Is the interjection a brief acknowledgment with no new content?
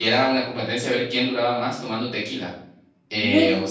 Yes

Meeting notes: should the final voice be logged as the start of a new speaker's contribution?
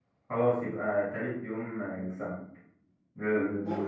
No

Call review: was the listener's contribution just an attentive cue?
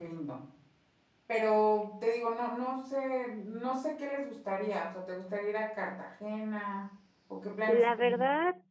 No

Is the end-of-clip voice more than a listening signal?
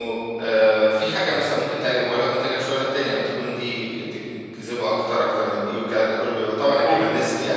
No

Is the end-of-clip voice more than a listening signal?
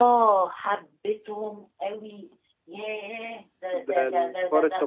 Yes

